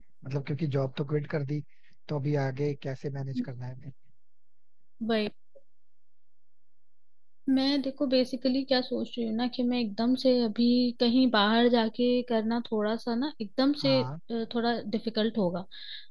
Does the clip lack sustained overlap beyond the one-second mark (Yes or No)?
Yes